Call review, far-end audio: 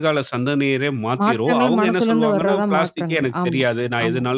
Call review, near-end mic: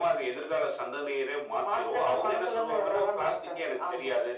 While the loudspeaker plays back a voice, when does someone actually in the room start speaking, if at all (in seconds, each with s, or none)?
none